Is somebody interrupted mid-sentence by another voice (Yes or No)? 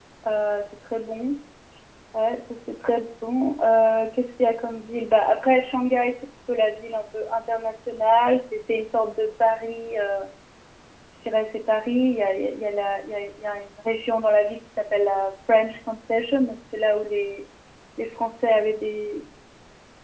No